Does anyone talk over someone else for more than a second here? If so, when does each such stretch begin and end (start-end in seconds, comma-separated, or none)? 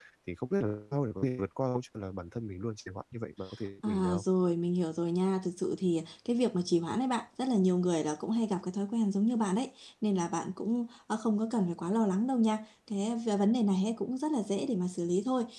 none